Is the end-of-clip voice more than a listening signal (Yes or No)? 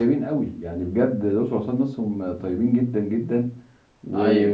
No